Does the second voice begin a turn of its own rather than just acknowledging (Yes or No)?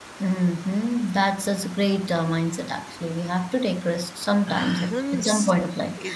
Yes